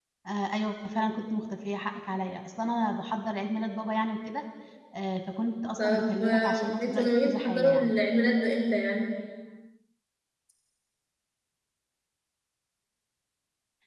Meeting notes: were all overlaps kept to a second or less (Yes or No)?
No